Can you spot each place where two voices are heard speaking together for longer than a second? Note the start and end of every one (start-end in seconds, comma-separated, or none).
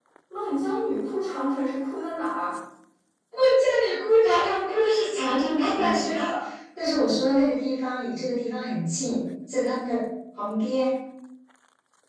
none